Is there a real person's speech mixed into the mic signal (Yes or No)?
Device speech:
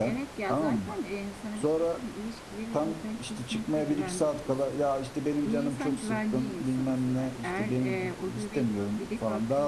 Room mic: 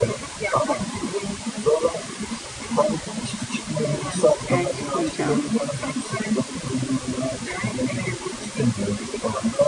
Yes